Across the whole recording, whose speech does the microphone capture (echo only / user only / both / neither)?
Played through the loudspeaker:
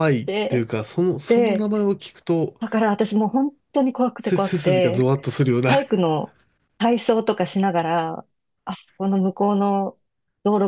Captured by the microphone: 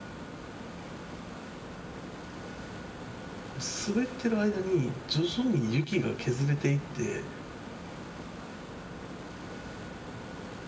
user only